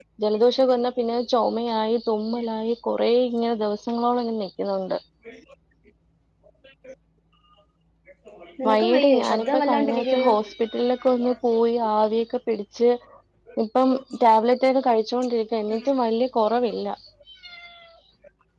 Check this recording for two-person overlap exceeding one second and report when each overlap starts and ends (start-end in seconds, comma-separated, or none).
8.7-10.3